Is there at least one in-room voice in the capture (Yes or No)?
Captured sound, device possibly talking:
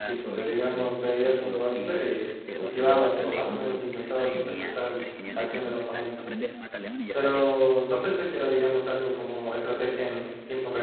Yes